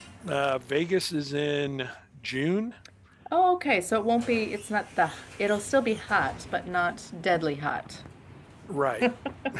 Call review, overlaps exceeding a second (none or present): none